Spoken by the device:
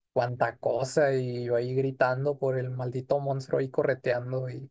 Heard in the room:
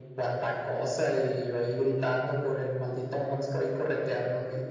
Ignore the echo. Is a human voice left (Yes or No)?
No